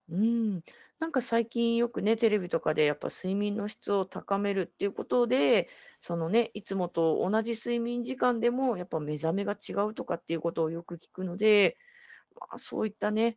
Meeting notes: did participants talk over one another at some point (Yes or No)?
No